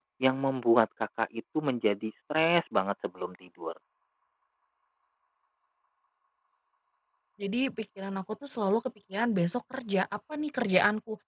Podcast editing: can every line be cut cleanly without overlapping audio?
Yes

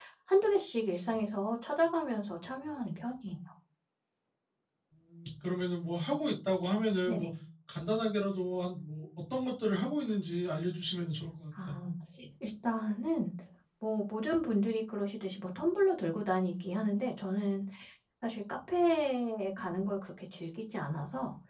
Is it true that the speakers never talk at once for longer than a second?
Yes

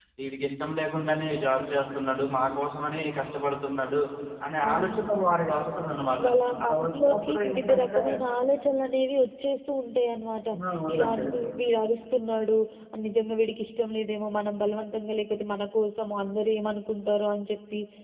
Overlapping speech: Yes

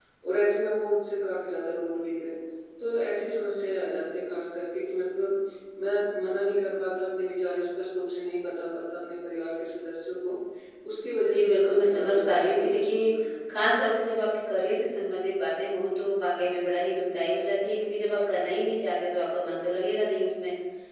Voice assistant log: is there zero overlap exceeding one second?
No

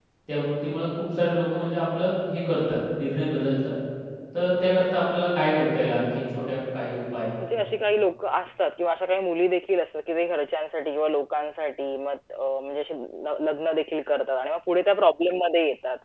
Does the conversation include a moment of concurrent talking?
No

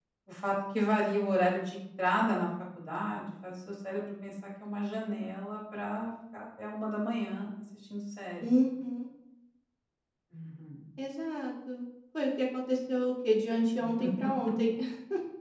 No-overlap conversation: Yes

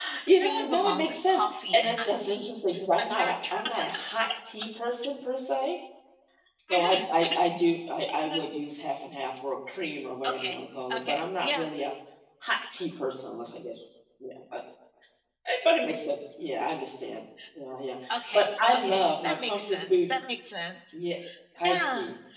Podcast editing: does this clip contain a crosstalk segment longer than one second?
Yes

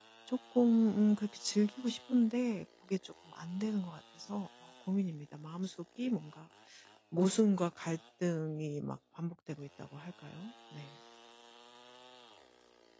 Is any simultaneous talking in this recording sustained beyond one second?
No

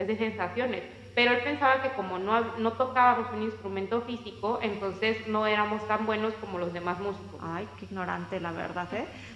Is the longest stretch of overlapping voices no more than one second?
Yes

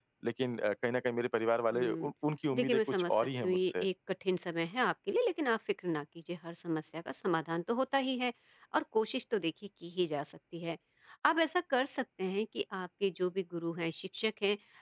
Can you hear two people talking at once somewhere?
Yes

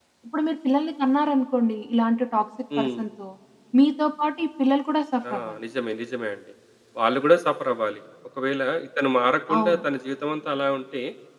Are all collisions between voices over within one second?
Yes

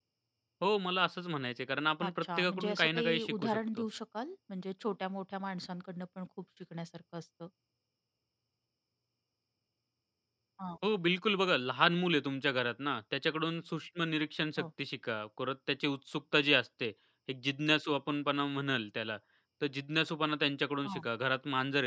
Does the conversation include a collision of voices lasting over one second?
Yes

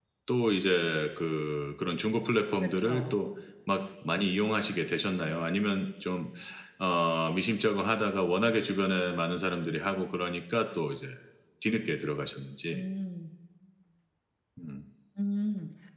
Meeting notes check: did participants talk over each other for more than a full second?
No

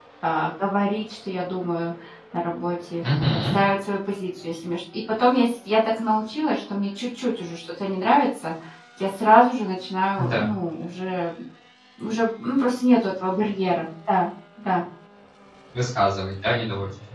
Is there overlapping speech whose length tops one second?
No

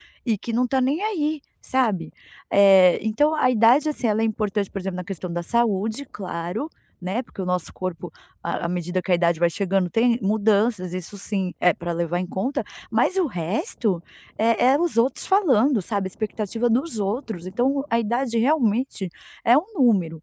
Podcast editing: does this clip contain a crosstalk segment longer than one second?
No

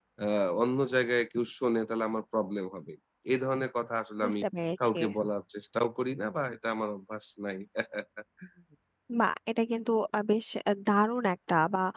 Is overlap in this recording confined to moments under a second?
Yes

